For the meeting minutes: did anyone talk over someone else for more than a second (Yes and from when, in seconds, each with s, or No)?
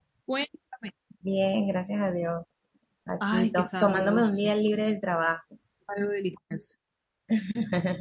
Yes, from 3.2 s